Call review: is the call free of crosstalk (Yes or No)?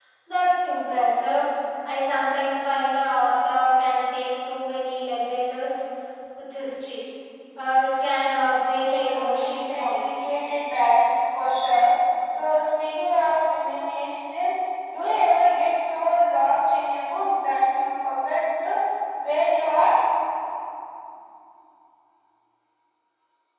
No